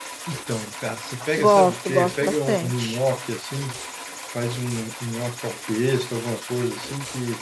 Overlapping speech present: Yes, from 1.4 s

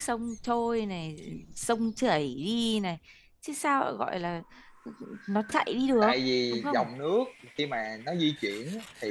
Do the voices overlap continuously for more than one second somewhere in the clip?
No

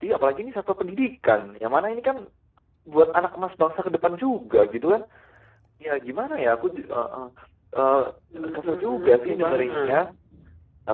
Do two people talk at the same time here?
Yes, from 8.4 s

